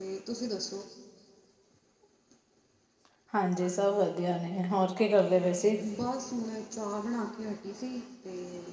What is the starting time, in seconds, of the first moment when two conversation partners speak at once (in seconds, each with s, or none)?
none